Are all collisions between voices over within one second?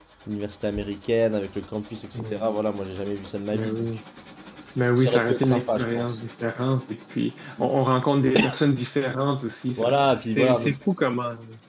No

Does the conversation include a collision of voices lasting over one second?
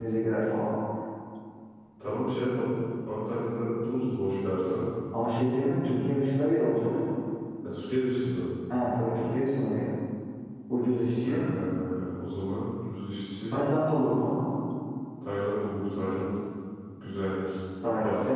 No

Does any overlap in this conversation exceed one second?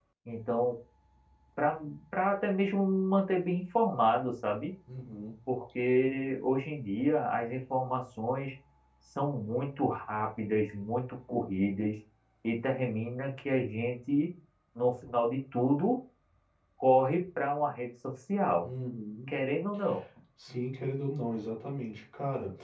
No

